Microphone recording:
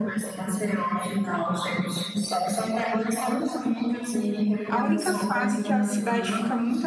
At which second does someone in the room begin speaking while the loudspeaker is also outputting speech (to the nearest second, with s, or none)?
5 s